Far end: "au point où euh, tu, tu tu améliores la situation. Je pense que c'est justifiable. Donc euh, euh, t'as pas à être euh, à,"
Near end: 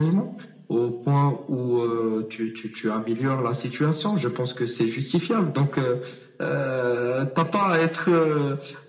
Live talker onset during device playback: none

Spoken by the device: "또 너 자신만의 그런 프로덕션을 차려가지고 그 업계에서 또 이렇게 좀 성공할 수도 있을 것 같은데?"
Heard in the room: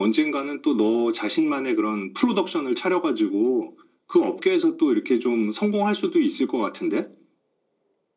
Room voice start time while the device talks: none

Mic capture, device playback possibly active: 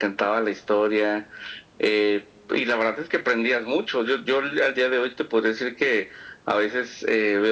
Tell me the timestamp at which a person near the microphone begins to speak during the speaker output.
none

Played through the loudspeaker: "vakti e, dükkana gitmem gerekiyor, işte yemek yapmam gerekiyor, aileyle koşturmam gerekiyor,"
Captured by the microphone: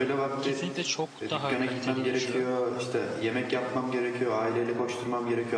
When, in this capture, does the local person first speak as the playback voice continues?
0.4 s

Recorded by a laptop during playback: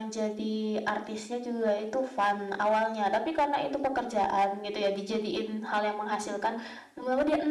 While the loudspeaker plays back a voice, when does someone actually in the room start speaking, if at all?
none

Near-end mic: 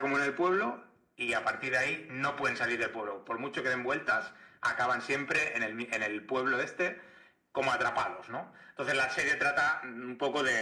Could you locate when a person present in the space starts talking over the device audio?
none

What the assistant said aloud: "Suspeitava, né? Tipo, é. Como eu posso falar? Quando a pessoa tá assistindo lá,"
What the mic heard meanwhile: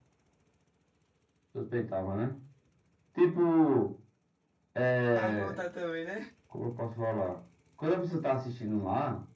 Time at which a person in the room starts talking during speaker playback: 5.1 s

